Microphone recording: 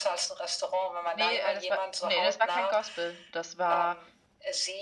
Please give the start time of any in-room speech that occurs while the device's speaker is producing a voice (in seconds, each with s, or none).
1.1 s